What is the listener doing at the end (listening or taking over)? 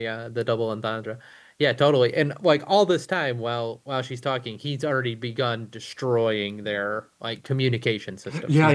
taking over